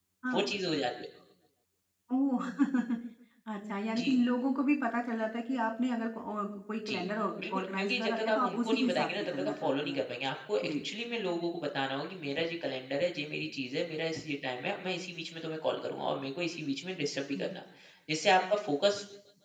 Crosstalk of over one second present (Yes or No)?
Yes